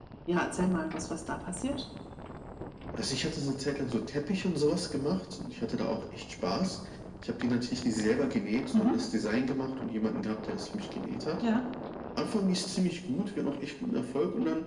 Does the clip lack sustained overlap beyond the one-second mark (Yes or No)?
Yes